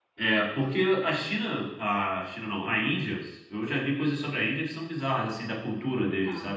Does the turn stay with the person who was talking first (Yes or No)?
Yes